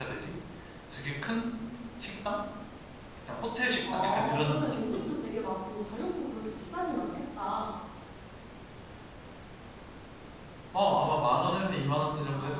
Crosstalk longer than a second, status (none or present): present